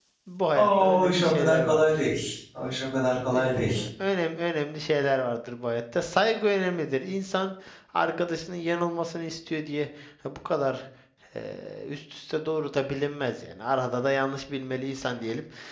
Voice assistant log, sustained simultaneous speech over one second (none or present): present